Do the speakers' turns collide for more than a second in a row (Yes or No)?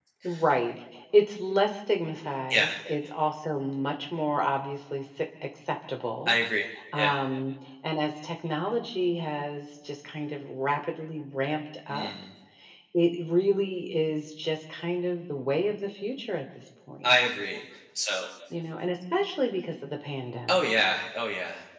No